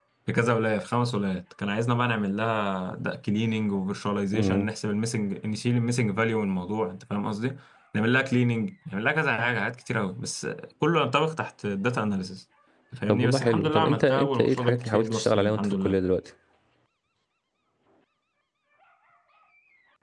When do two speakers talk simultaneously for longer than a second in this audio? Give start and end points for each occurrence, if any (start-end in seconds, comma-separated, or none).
13.1-16.0